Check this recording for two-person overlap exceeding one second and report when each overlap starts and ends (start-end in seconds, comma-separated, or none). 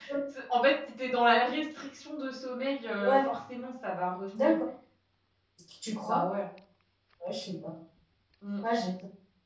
none